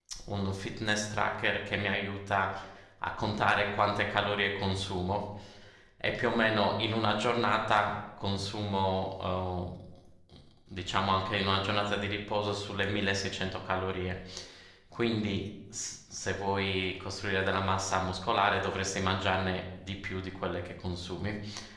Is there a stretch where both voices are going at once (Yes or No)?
No